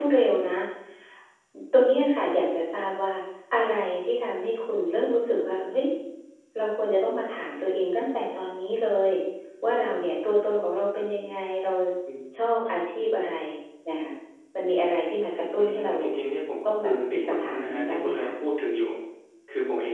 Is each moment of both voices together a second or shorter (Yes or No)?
No